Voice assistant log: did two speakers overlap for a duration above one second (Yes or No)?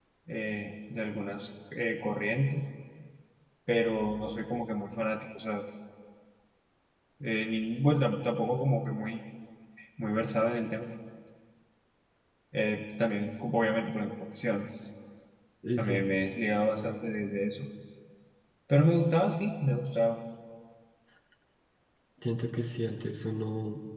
No